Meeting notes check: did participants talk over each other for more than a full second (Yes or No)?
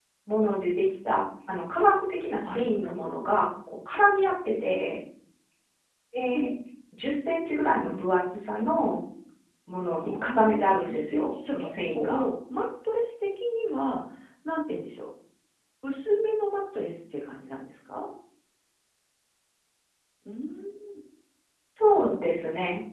Yes